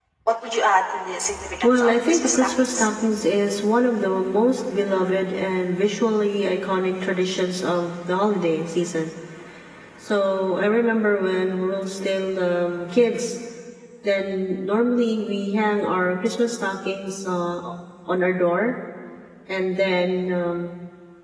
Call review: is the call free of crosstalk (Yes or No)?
No